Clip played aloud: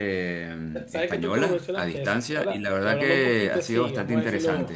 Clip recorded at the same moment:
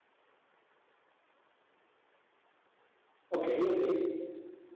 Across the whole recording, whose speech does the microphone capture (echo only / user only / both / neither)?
user only